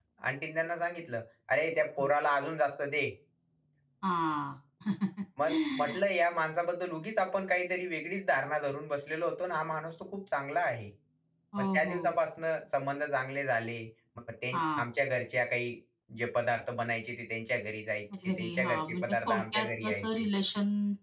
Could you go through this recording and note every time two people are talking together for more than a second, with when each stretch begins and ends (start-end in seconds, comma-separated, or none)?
18.2-20.2